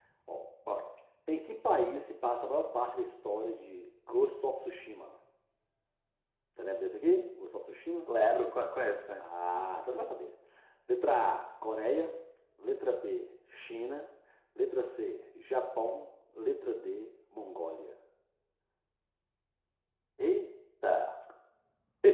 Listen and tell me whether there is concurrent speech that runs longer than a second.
No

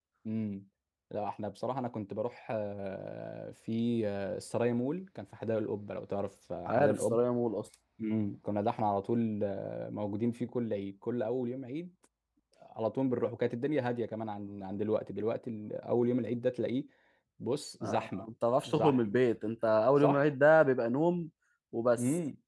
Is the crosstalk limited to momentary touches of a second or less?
Yes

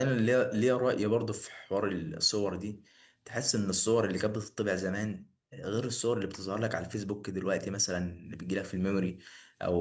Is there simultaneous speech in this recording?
No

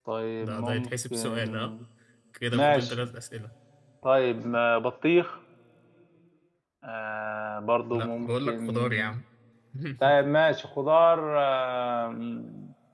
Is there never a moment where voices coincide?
No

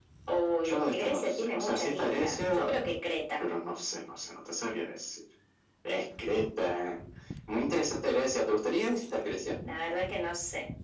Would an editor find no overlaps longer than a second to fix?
No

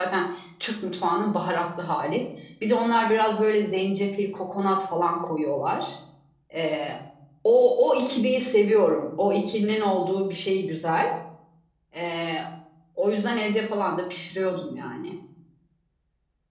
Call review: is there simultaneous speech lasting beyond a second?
No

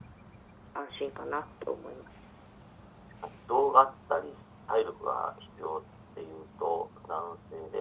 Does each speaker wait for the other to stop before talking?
Yes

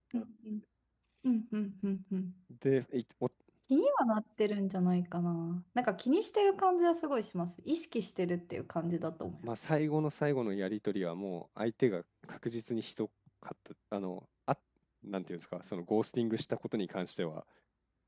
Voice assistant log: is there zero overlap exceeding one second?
Yes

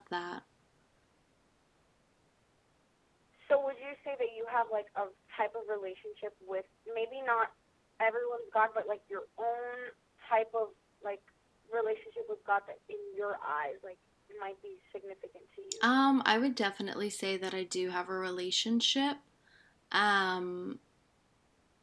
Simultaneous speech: No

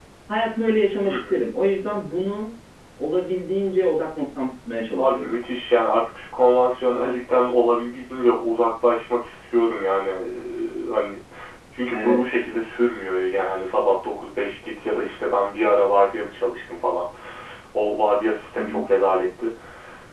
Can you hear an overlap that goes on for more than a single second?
No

